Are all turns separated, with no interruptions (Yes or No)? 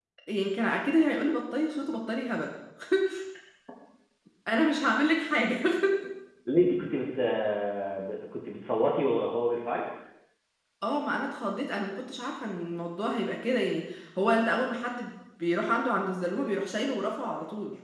Yes